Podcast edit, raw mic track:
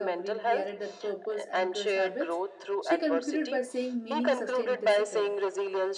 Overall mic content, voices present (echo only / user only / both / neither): both